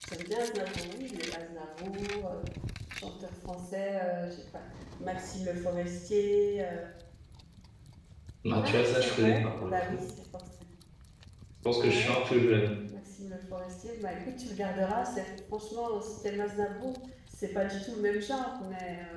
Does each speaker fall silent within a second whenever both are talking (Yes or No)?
No